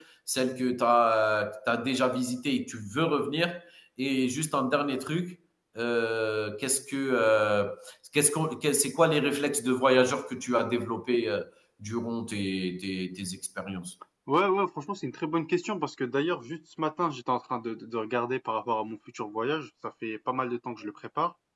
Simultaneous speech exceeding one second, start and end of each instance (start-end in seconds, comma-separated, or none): none